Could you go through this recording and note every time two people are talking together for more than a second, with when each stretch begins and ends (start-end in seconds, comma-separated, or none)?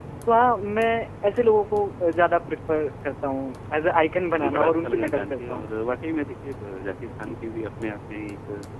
4.4-5.6